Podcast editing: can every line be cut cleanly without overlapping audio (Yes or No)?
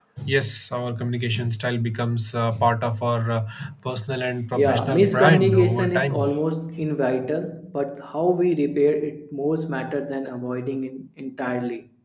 No